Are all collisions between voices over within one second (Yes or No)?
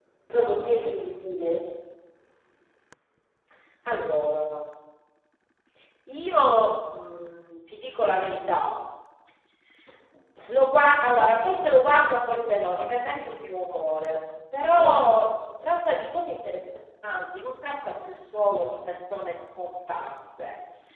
Yes